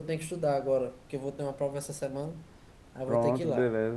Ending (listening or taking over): taking over